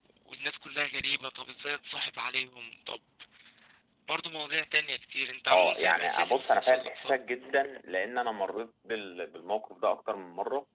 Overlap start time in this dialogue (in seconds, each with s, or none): 5.5 s